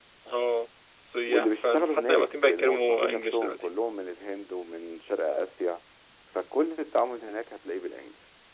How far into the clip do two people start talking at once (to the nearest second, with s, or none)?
1 s